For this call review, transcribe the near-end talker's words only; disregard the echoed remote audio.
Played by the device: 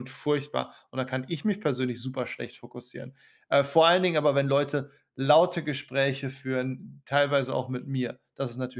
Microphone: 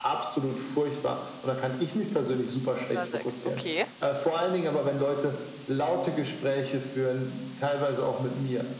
Auf 'ner 6, okay.

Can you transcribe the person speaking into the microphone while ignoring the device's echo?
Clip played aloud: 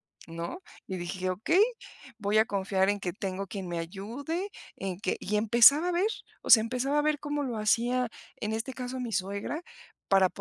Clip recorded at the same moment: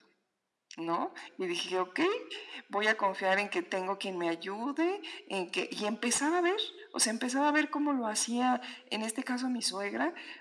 none

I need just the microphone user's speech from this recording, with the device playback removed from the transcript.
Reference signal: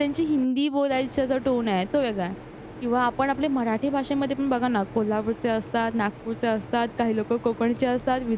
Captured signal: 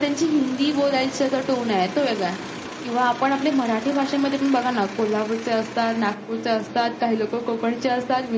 none

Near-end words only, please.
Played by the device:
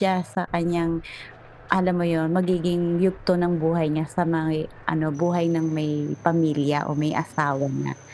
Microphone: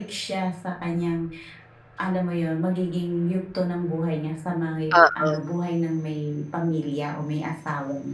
Oo.

